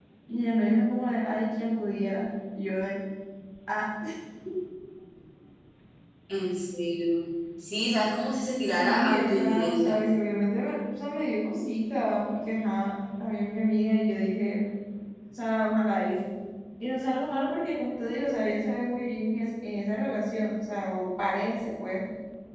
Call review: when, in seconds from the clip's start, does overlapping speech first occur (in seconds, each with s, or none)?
8.7 s